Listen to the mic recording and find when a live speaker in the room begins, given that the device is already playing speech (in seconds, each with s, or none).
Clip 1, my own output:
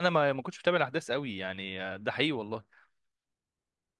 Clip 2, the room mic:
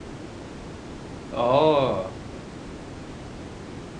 1.3 s